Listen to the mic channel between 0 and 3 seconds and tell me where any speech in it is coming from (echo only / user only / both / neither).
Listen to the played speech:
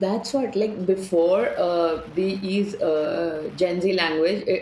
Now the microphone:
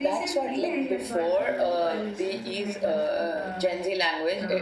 both